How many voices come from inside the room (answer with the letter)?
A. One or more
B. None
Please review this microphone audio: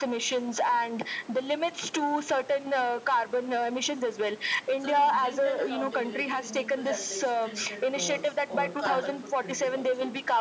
A